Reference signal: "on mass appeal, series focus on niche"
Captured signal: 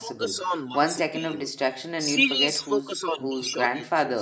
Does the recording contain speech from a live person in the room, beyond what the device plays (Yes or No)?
Yes